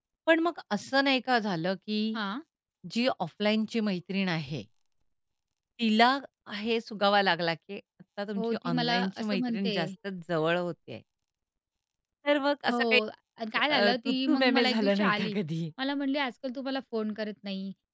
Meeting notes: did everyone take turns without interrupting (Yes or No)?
No